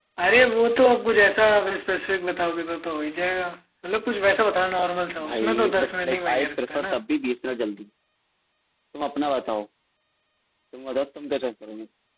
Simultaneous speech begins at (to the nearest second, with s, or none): 5 s